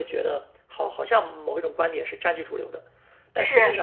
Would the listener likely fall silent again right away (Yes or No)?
Yes